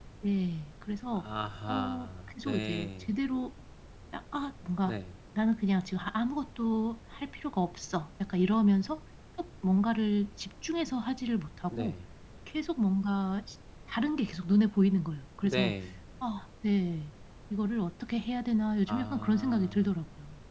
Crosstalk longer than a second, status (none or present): present